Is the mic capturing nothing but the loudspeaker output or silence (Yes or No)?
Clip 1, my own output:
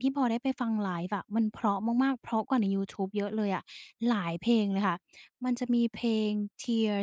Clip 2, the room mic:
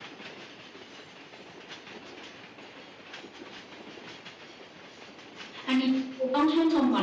No